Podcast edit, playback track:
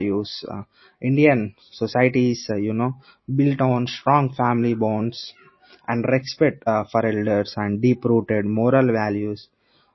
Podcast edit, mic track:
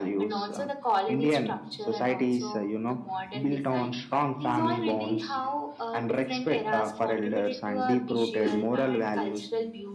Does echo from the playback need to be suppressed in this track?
Yes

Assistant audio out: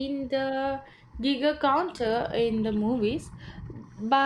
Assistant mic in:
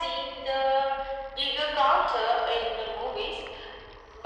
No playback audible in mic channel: No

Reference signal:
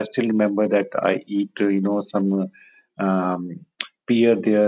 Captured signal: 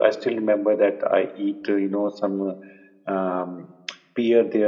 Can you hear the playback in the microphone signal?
Yes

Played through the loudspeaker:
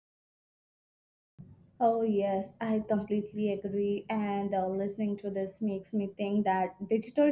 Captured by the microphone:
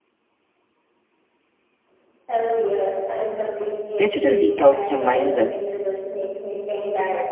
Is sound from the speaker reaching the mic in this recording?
Yes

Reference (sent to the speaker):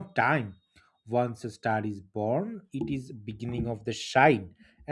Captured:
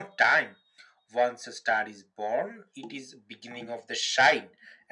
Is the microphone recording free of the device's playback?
No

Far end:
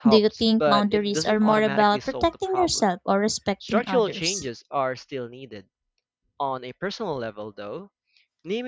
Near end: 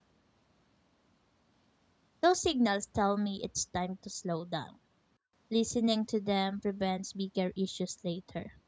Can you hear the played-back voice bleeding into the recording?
No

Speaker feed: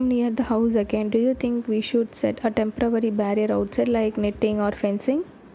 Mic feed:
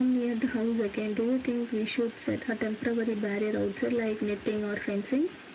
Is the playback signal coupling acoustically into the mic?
Yes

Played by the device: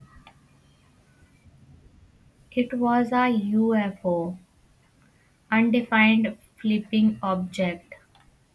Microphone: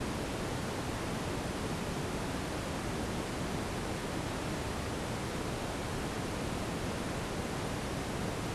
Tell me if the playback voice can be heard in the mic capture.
No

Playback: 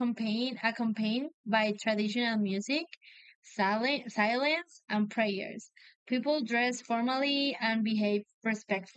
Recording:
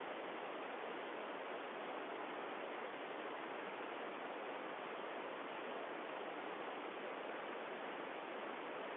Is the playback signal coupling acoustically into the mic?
No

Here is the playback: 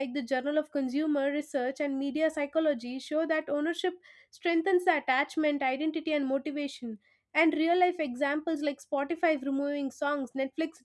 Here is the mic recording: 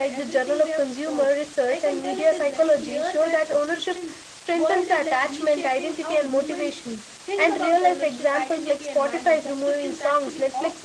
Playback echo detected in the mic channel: Yes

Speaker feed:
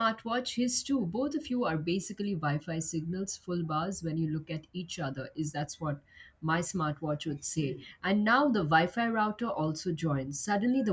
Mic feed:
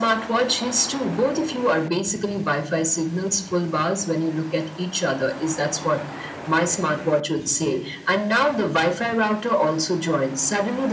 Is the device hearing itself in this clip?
Yes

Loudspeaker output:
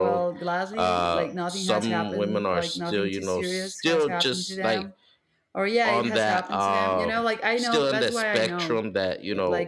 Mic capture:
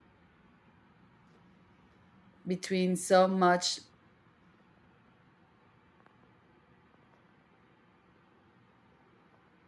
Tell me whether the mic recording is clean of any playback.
Yes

